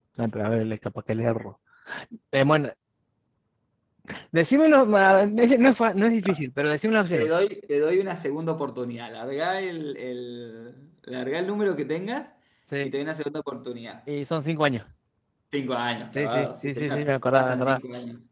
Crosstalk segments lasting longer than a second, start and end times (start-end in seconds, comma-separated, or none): 16.2-17.8